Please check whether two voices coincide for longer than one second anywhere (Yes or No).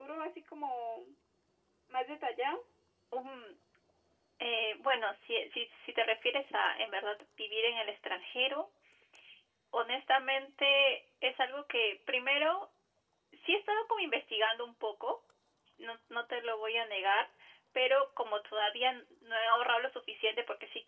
No